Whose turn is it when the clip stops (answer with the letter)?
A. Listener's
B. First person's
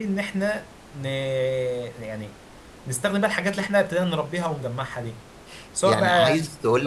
A